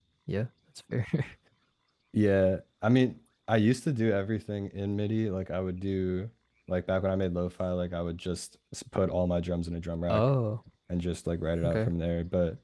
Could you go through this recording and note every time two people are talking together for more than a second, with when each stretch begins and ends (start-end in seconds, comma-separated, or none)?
none